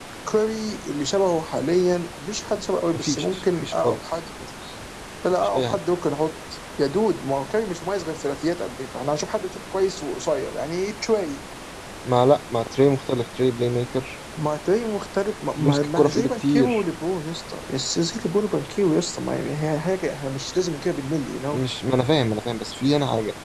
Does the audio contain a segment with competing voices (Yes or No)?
Yes